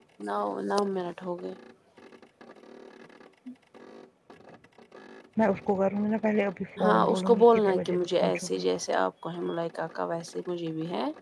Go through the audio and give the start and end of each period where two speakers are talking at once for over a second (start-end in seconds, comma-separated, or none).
6.8-8.6